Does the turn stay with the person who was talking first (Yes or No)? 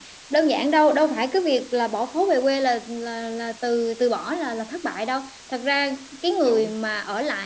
Yes